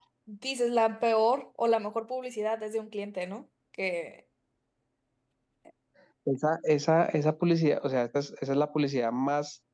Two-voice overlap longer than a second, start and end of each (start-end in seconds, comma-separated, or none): none